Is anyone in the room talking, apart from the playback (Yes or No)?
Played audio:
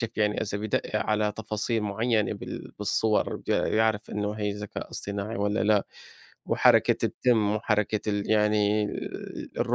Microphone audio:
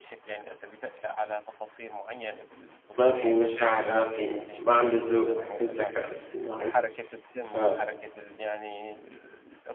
Yes